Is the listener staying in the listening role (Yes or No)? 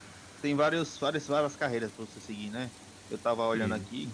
Yes